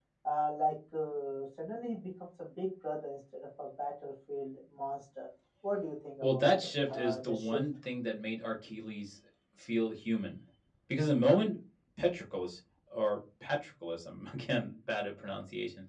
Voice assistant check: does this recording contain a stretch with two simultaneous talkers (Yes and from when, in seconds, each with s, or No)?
Yes, from 6.2 s